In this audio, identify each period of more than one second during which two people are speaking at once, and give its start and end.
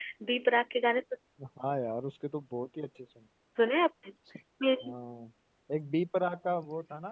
none

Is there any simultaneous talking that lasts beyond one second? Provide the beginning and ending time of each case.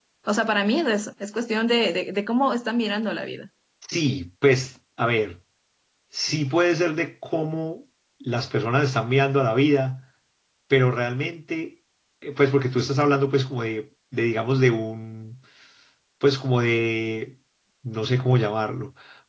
none

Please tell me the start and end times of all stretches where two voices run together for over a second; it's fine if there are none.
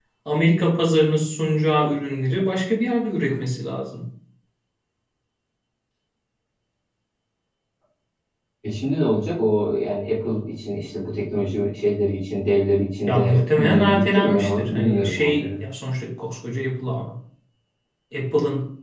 13.1-15.5

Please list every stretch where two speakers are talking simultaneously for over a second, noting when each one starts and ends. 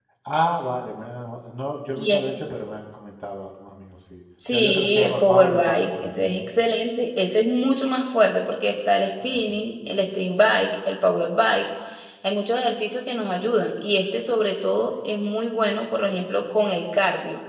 4.5-6.5

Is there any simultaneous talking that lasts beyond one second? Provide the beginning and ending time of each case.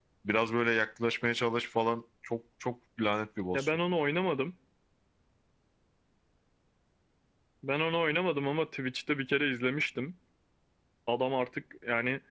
none

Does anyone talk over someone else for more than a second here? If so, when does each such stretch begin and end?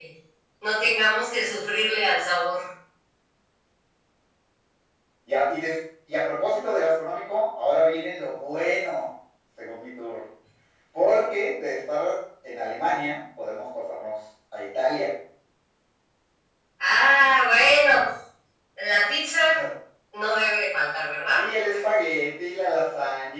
none

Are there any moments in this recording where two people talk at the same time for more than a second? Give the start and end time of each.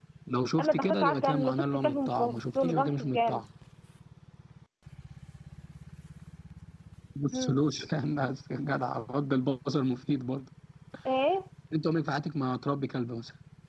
0.6-3.4

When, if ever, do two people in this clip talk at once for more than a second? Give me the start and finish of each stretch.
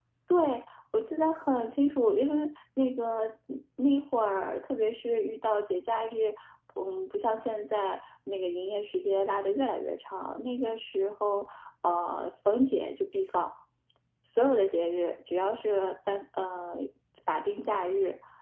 none

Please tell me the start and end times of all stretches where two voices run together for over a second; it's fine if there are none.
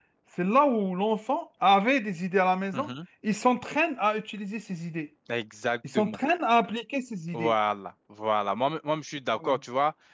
none

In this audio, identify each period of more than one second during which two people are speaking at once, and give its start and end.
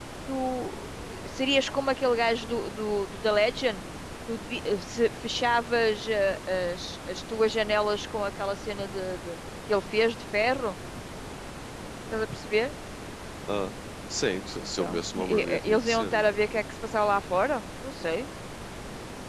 14.6-16.3

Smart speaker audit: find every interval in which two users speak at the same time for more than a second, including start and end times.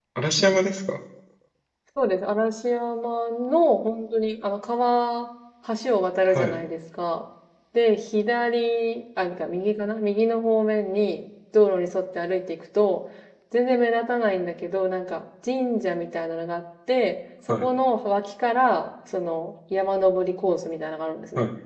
none

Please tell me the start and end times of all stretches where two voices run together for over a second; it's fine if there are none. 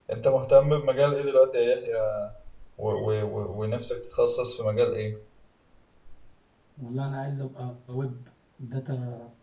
none

